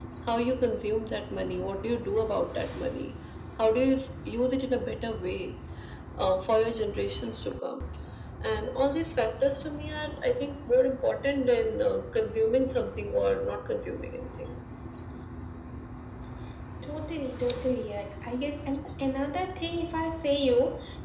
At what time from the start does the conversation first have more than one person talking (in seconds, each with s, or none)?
none